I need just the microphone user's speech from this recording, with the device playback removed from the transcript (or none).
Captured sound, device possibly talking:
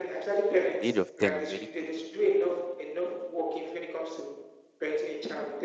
At the age of ten, he was already coding.